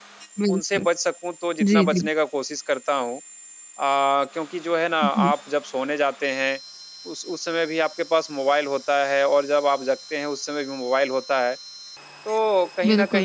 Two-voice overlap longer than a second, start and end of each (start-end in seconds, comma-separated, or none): none